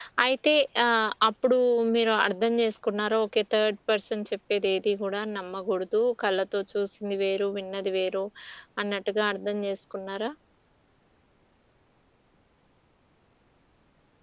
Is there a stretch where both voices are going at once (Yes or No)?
No